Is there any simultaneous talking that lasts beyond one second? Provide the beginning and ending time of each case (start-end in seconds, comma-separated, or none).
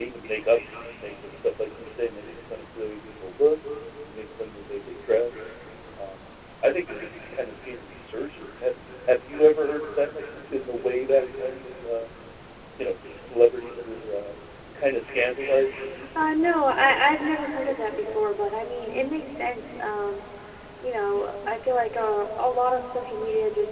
16.2-18.2